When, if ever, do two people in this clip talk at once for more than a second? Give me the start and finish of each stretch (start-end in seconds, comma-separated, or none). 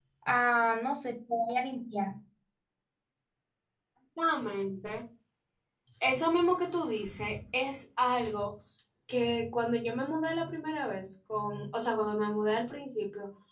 none